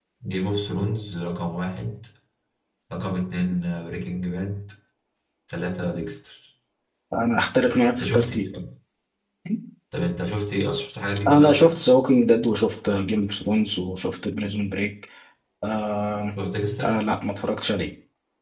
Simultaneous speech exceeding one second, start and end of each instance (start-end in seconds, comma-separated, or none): none